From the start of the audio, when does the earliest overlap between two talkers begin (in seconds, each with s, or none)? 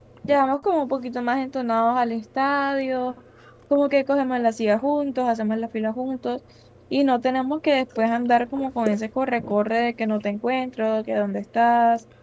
none